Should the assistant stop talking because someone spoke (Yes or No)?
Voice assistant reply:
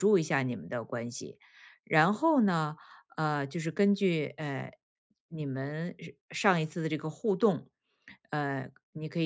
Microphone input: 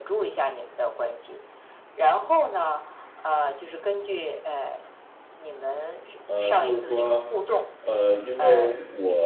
Yes